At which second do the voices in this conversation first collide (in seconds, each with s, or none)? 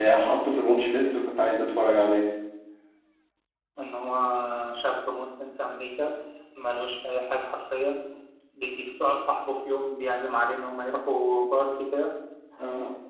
none